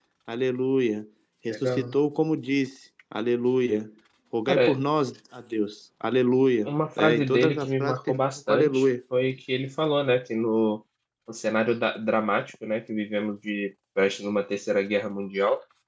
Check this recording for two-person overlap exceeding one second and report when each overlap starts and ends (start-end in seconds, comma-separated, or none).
6.6-8.8